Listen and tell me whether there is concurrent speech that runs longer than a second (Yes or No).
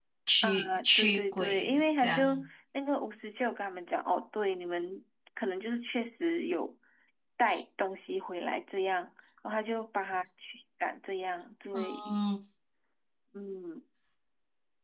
Yes